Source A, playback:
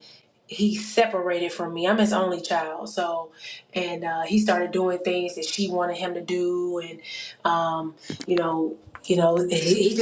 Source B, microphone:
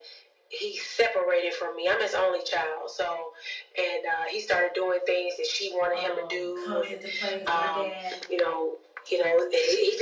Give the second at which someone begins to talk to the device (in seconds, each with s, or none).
5.9 s